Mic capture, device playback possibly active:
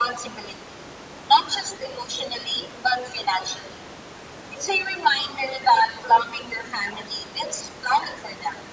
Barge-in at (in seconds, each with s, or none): none